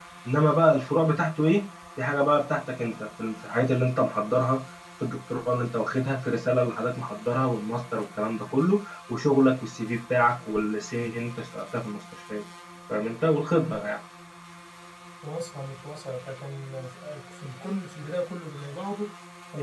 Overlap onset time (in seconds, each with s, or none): none